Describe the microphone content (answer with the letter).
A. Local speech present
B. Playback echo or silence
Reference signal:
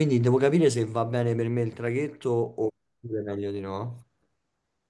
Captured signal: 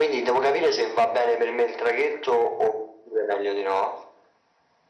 B